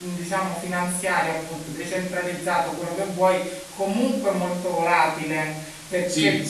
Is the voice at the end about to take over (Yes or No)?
No